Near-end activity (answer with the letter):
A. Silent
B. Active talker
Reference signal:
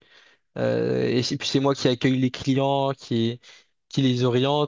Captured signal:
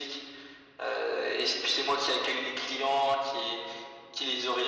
A